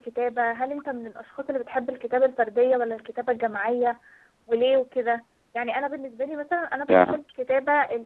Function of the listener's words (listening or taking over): listening